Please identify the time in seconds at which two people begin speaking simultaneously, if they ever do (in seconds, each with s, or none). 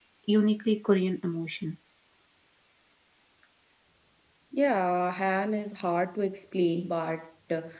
none